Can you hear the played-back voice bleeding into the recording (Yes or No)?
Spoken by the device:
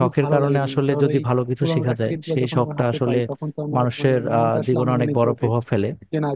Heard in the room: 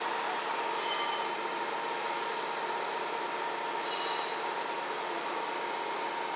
No